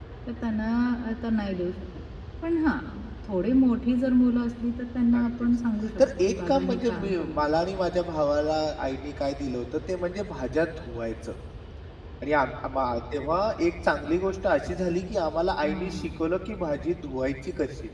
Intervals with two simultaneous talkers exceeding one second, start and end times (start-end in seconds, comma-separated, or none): 6.0-7.6